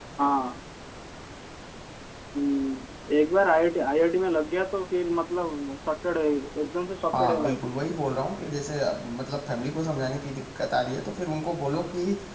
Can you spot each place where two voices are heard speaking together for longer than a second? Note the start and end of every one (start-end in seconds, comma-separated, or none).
none